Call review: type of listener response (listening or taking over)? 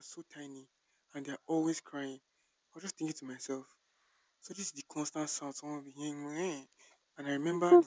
listening